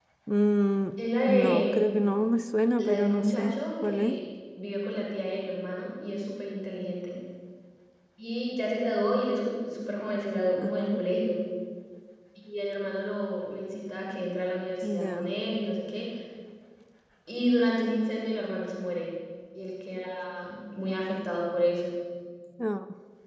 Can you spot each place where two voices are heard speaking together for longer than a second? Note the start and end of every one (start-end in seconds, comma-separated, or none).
2.8-4.2